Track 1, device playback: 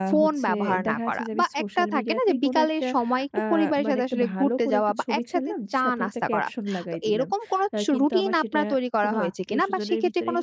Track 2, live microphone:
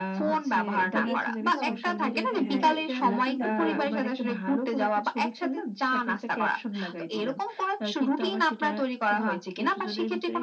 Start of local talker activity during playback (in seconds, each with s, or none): 0.9 s